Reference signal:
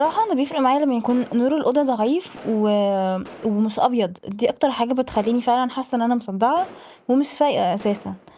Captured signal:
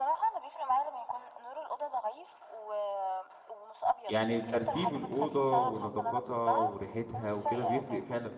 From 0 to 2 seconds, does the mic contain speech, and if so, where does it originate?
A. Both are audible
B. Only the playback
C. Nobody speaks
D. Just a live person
B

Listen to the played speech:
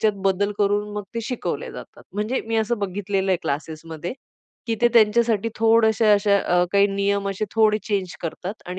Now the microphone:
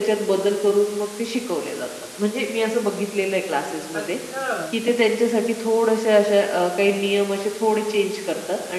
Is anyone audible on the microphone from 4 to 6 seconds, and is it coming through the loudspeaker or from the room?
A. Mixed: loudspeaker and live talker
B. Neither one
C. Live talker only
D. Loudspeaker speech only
A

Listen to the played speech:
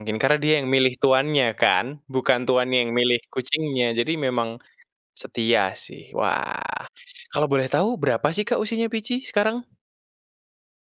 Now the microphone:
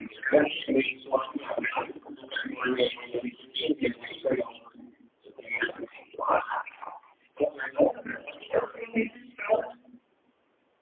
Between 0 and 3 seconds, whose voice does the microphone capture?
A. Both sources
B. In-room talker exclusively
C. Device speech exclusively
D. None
C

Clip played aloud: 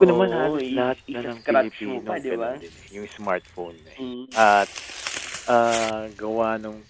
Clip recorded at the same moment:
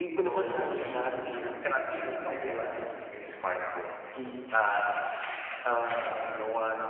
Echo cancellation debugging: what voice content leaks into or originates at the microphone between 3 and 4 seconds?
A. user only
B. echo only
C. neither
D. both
B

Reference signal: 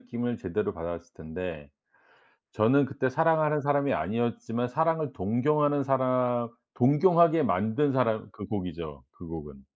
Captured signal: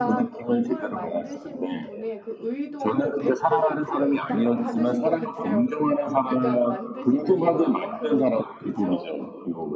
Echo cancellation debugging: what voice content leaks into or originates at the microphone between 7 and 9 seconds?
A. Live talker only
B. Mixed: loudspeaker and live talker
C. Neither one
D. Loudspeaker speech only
B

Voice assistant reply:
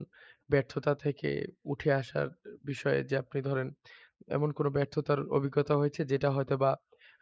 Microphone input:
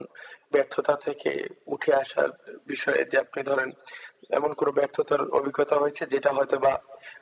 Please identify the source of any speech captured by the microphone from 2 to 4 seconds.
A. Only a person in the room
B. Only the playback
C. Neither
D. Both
B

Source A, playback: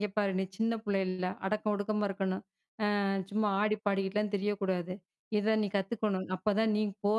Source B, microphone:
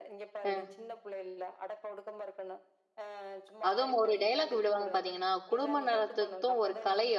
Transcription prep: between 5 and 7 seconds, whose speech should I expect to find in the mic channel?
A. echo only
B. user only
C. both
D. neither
C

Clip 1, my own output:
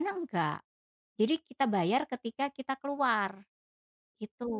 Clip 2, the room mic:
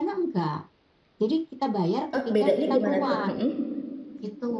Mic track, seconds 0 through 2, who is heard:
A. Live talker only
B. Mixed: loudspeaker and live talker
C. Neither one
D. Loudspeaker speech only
D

